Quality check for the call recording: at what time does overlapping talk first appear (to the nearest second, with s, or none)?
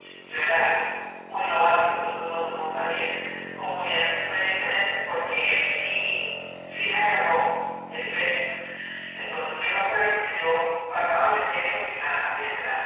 none